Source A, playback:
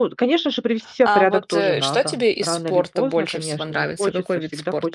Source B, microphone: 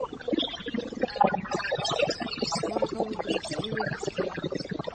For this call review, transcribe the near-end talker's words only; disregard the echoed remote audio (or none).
Может новых друзей завести.